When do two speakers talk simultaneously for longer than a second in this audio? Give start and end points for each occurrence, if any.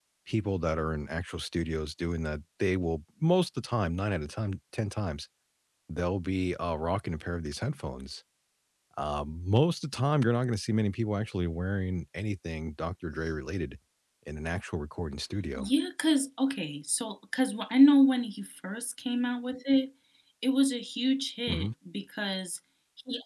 none

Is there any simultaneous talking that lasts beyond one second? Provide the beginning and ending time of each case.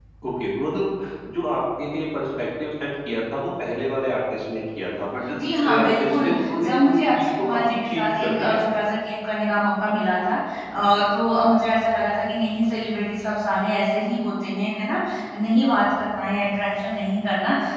5.5-8.6

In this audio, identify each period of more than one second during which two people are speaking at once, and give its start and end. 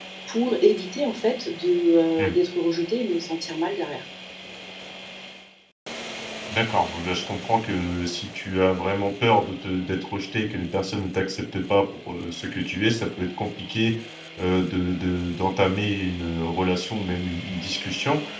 none

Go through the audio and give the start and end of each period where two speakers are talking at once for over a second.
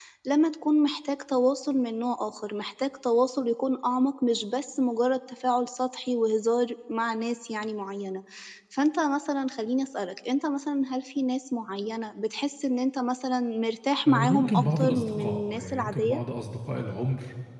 14.1-16.2

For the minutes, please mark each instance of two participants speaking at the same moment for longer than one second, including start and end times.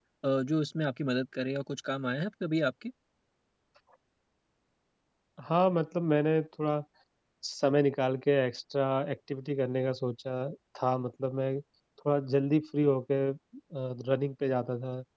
none

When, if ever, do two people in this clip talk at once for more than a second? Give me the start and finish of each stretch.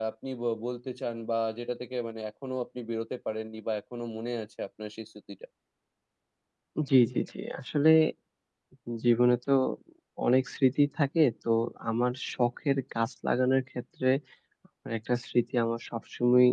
none

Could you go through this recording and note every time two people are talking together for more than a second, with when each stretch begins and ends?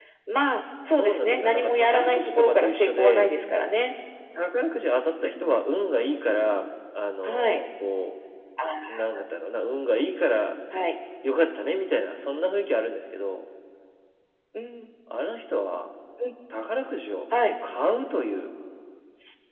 0.9-3.3

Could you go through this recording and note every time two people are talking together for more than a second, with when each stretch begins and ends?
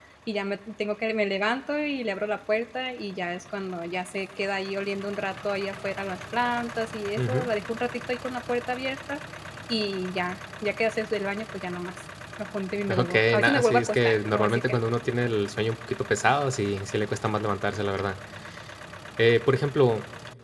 12.9-14.8

